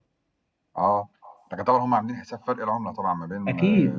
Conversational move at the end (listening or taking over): taking over